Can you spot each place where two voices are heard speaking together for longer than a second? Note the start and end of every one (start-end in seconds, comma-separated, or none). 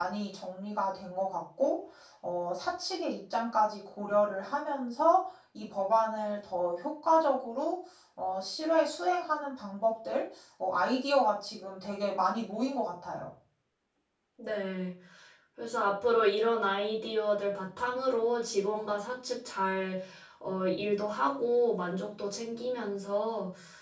none